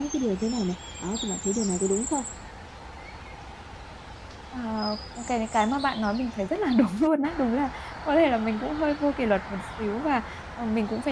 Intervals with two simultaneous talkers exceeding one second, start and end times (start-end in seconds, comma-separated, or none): none